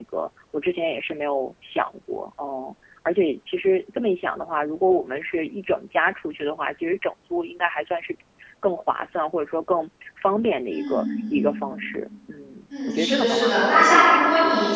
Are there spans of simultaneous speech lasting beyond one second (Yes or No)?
Yes